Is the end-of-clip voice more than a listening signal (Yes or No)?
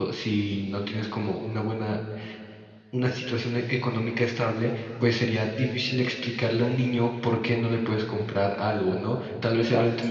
No